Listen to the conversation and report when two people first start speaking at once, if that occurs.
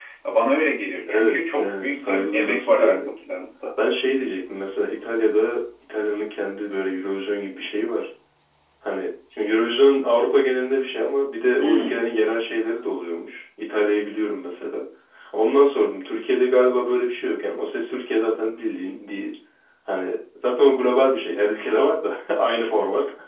1.1 s

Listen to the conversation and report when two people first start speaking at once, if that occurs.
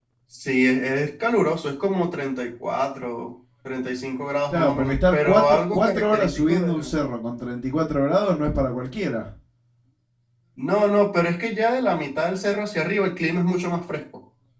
4.5 s

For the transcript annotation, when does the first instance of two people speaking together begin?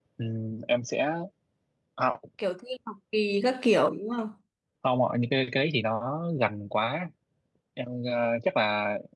none

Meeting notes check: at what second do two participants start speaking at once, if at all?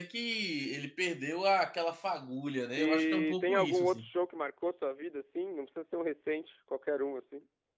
2.8 s

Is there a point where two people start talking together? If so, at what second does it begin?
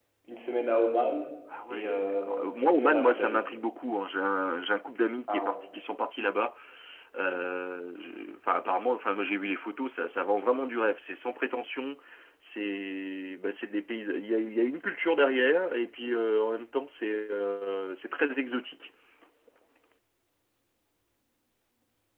1.7 s

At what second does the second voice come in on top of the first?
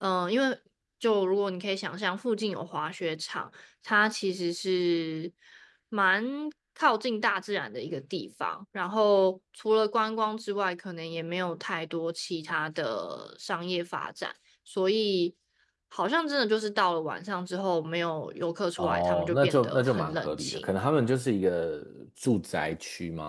18.8 s

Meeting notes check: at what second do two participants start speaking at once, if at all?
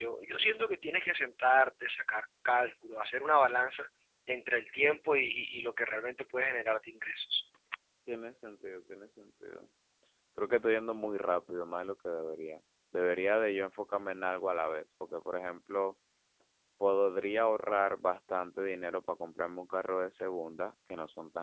none

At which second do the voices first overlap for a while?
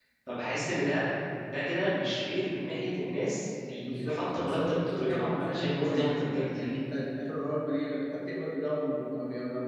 3.9 s

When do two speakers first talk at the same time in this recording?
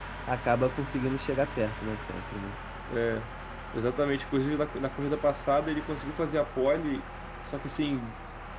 none

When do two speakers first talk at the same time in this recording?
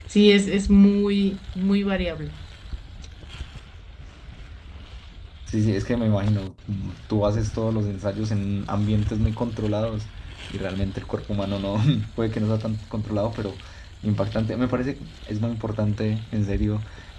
none

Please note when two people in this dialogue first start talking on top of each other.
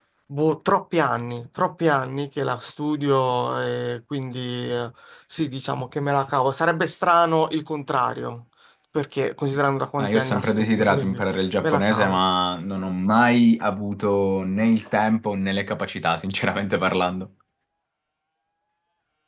10.0 s

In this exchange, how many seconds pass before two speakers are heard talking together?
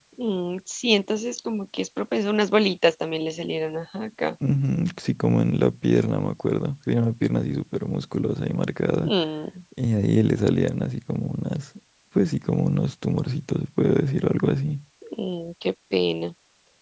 none

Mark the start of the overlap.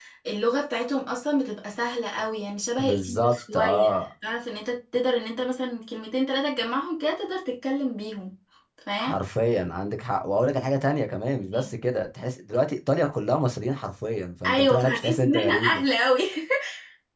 2.8 s

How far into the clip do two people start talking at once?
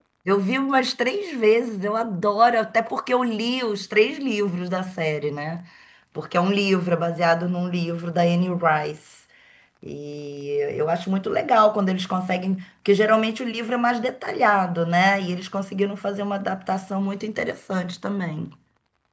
none

